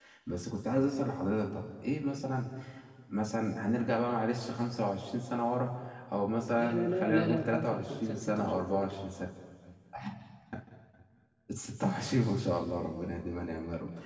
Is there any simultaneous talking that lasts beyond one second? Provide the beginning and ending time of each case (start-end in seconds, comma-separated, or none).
6.5-9.1